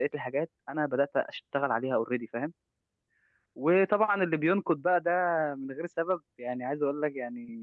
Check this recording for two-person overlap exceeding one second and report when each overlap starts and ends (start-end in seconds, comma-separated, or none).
none